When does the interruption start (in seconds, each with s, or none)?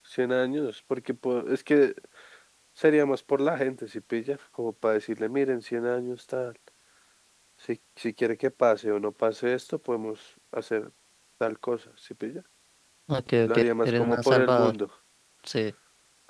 13.5 s